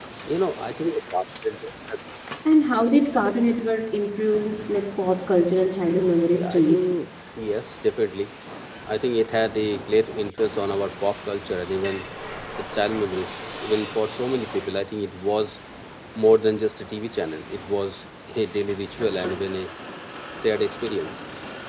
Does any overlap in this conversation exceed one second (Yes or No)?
No